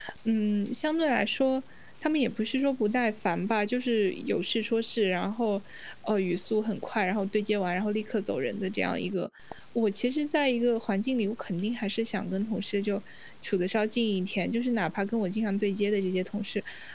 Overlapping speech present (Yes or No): No